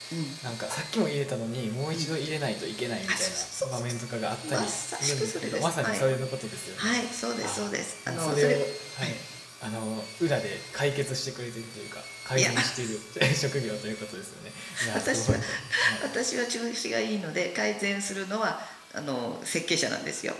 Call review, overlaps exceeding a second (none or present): present